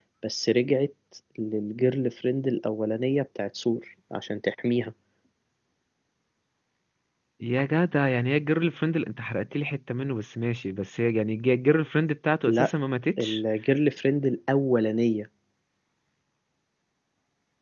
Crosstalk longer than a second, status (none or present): none